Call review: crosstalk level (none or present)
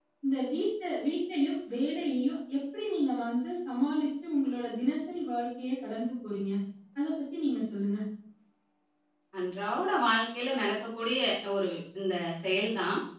none